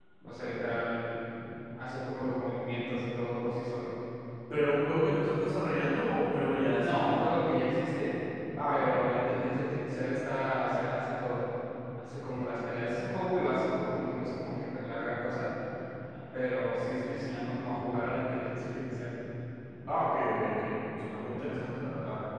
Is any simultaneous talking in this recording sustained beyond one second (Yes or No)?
No